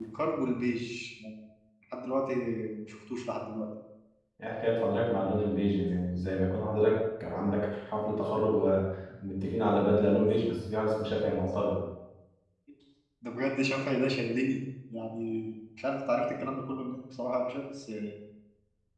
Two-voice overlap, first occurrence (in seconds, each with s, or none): none